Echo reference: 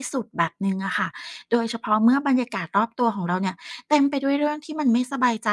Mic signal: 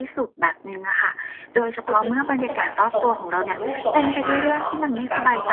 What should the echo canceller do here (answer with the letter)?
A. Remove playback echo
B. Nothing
A